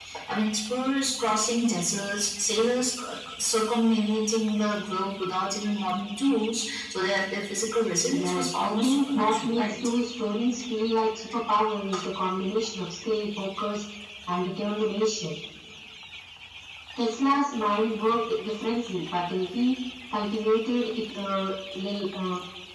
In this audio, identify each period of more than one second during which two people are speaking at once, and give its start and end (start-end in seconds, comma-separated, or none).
8.1-9.6